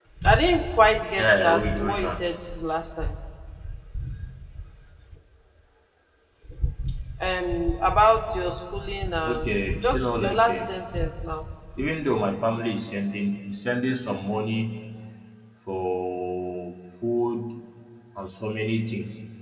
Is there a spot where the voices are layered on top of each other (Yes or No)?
Yes